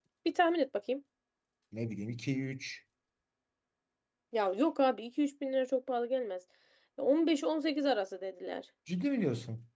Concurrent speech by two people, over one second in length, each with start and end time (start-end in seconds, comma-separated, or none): none